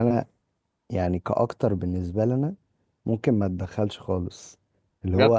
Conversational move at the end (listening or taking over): listening